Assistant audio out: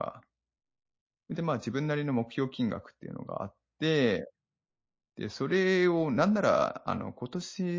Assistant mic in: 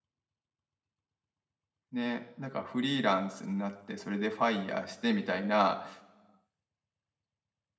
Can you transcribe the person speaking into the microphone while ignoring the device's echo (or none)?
ね、なんかフリーランスんなって、それで FIRE してみたいな、